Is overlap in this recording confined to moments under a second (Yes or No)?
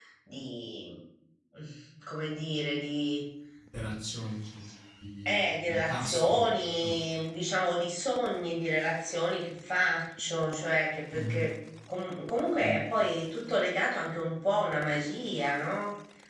No